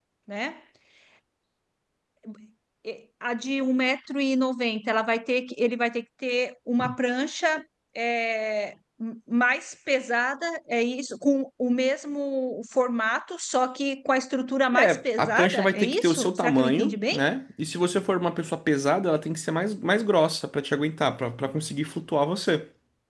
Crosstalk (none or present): present